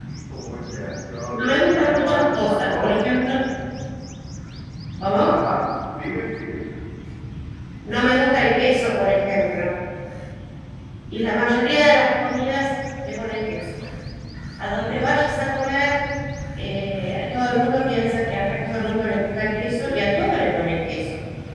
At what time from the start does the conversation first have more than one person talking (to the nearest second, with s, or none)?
1 s